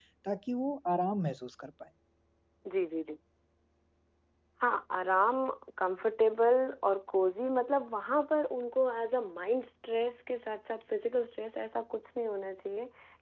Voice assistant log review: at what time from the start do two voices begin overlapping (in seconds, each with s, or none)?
none